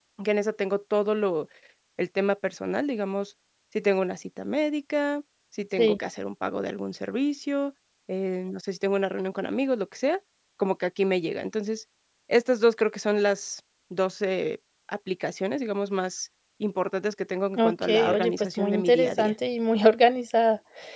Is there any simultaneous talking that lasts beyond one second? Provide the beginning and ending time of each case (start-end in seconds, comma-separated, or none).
17.6-19.3